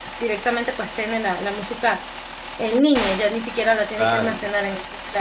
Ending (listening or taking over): taking over